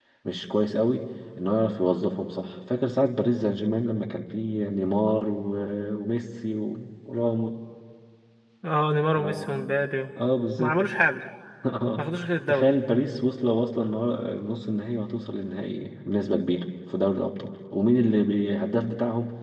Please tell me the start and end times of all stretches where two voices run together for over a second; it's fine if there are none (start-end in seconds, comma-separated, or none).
none